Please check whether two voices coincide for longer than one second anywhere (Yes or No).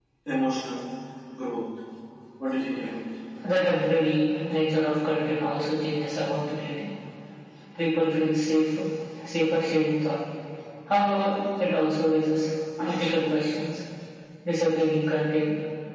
No